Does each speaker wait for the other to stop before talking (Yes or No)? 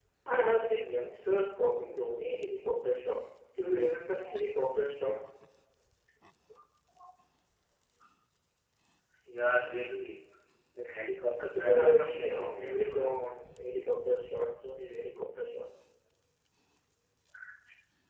No